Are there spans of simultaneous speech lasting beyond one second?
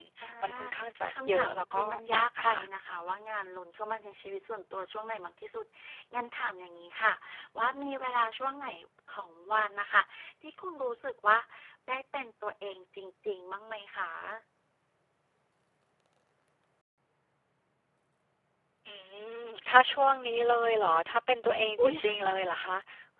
Yes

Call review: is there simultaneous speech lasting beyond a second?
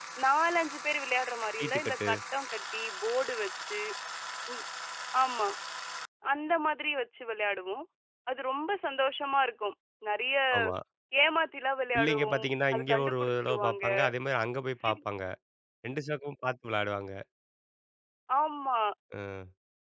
Yes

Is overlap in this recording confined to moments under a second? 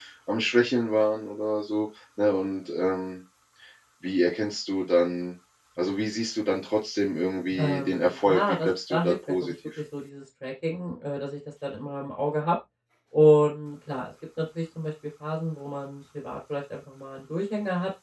No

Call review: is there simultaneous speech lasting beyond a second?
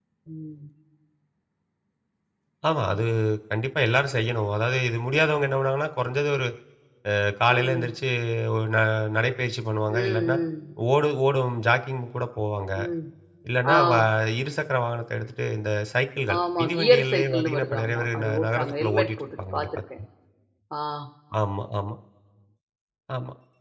Yes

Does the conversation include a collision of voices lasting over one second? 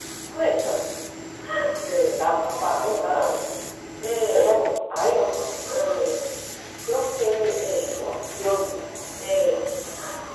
No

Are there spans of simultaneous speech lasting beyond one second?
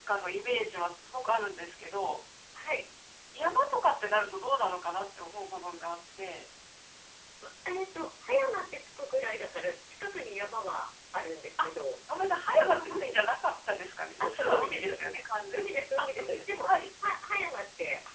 Yes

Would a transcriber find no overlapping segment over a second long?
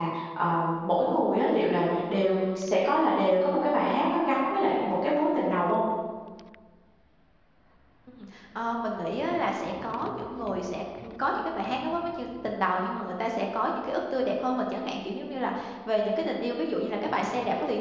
Yes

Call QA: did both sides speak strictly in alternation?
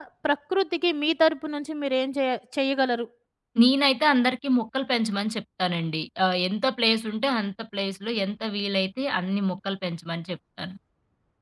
Yes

